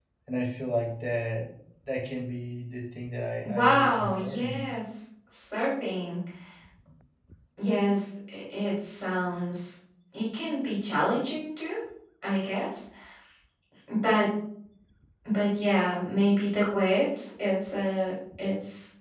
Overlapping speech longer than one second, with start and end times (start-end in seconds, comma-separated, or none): 3.4-4.6